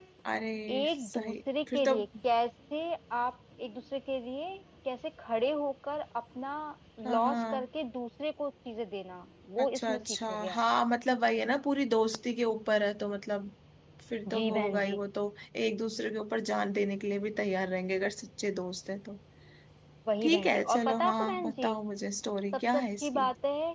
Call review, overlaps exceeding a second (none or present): present